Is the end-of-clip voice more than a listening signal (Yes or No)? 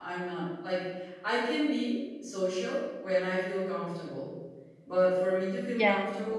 No